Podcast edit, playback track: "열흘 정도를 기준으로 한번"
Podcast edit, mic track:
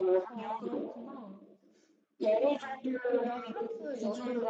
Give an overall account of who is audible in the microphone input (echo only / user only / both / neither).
both